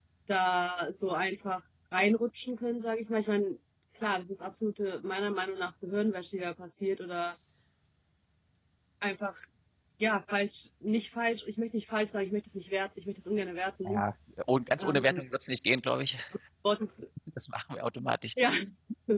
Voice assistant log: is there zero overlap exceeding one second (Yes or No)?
Yes